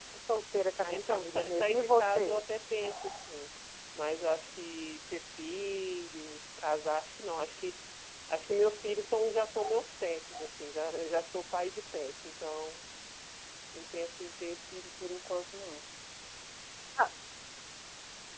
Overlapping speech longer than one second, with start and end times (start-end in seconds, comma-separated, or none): 0.8-2.4